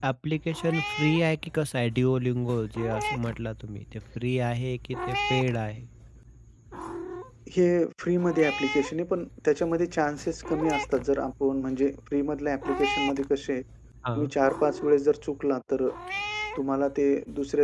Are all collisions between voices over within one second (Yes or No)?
Yes